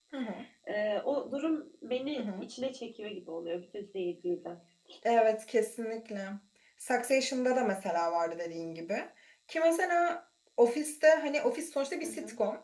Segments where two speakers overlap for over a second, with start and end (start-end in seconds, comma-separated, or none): none